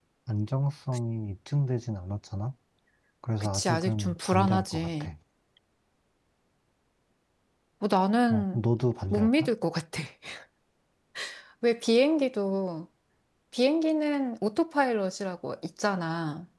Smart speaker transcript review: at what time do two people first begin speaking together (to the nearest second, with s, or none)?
4 s